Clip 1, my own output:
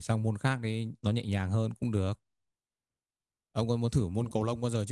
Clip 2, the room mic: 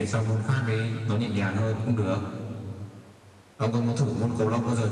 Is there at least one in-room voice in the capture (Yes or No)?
No